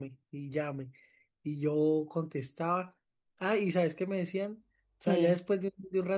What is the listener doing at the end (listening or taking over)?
listening